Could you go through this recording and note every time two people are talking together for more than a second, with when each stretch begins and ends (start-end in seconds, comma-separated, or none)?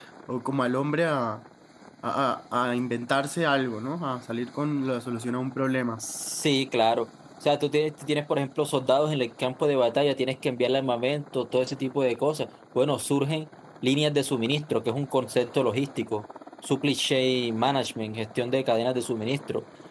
none